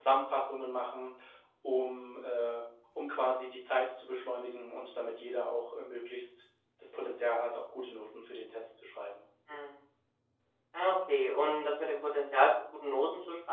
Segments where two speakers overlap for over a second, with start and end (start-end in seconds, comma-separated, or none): none